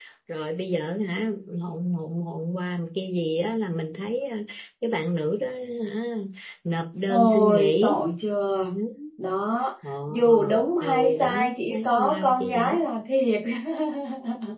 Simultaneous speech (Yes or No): Yes